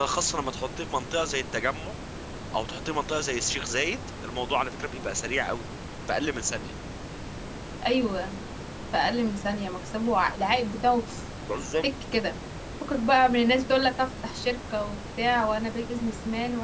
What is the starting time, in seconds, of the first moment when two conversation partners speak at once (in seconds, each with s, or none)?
none